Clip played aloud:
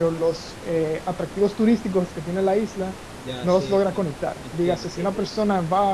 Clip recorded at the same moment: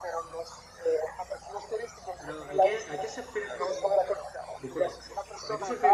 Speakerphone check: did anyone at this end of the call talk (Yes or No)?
Yes